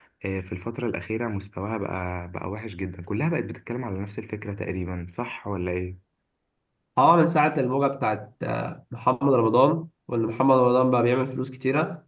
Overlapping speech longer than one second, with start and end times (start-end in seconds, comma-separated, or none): none